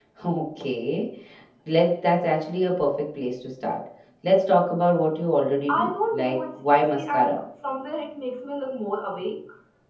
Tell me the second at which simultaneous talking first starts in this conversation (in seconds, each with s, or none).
5.7 s